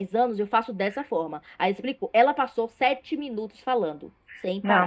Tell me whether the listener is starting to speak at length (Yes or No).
Yes